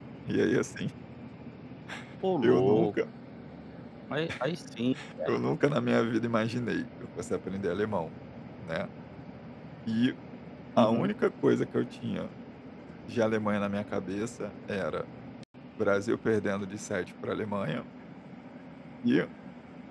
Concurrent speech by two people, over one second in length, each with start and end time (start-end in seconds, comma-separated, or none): none